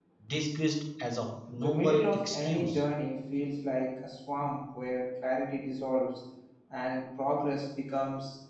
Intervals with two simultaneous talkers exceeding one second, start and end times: 1.6-2.8

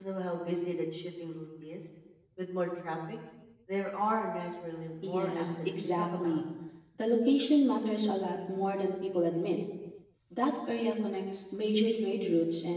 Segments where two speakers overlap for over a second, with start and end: 5.0-6.4

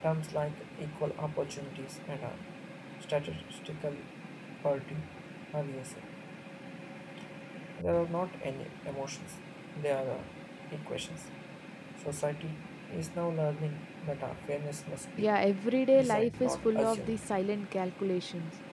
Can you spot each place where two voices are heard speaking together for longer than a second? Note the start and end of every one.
15.9-17.3

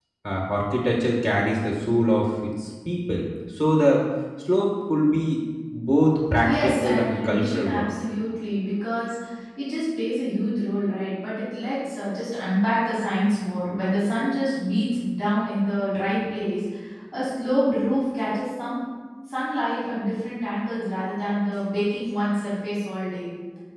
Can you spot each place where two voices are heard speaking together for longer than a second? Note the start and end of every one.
6.4-7.9

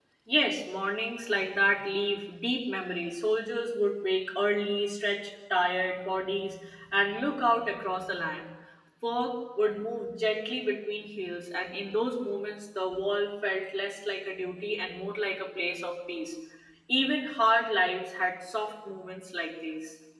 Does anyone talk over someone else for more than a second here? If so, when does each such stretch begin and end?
none

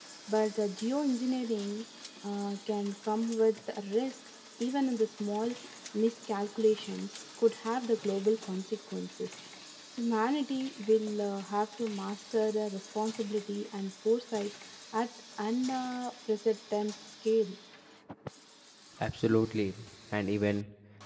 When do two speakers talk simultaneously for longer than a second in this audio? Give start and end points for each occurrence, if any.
none

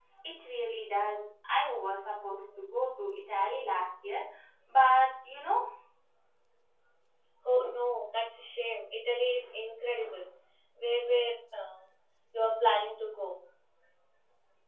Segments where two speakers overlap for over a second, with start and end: none

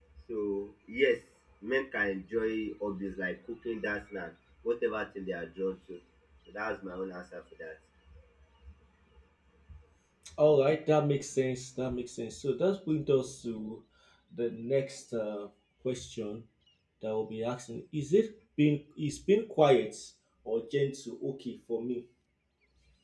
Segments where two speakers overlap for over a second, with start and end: none

